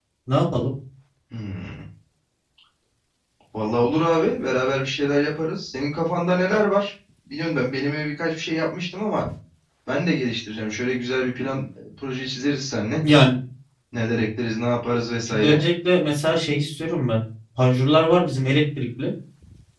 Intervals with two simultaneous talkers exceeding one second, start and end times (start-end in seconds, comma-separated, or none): none